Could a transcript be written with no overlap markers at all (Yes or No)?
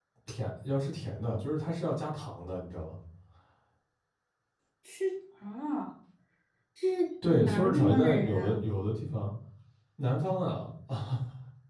No